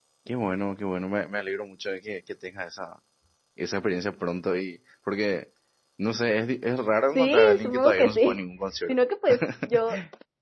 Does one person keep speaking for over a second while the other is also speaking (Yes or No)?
Yes